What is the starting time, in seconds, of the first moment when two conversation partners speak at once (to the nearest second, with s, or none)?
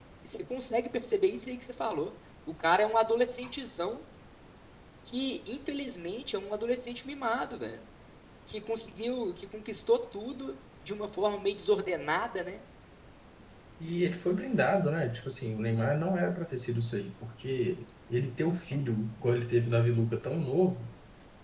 none